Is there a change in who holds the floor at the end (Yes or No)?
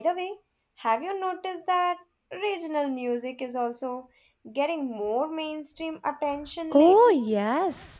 Yes